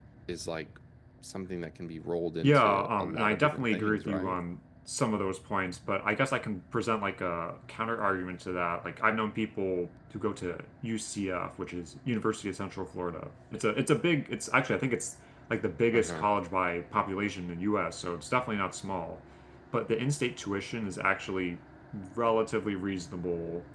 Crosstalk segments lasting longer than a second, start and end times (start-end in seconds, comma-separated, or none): 2.4-4.4